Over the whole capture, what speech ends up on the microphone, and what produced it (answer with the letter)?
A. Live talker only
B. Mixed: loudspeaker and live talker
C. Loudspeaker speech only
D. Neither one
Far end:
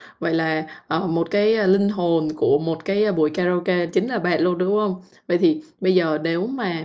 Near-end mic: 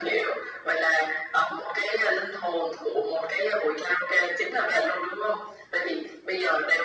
C